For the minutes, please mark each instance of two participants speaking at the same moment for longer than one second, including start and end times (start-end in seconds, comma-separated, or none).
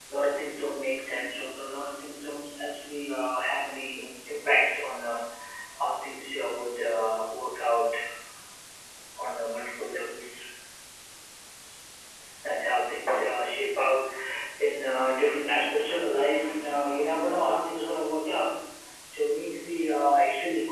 none